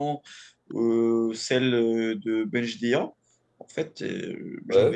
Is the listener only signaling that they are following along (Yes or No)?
Yes